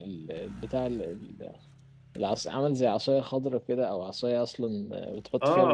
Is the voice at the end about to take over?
Yes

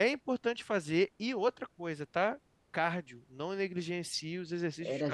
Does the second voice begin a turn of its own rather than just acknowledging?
Yes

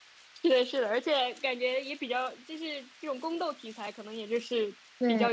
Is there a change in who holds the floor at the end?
No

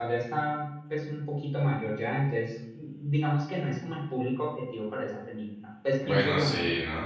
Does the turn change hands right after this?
Yes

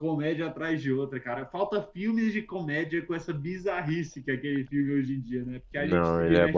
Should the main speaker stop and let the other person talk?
Yes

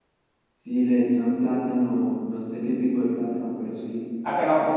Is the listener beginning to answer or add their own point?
Yes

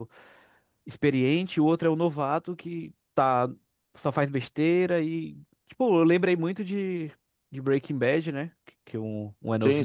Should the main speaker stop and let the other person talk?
No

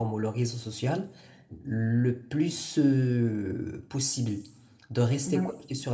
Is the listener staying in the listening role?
Yes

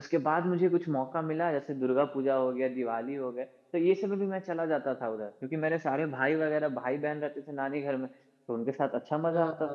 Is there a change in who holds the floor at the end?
No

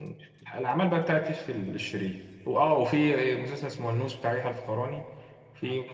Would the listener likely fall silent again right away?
Yes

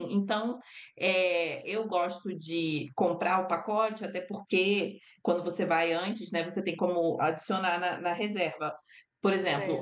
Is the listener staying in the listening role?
Yes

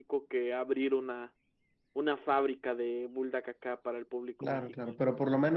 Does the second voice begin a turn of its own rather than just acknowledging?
Yes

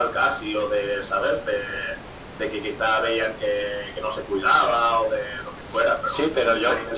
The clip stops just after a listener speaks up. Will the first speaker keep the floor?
No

